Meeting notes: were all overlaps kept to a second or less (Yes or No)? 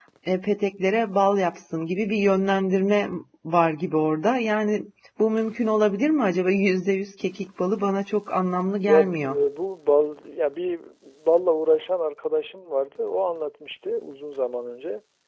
Yes